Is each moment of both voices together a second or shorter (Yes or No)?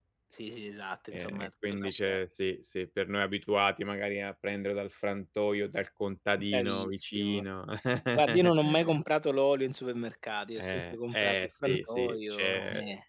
No